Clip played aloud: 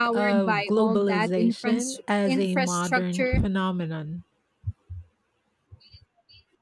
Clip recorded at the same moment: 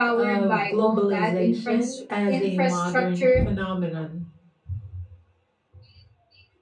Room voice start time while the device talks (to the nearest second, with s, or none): none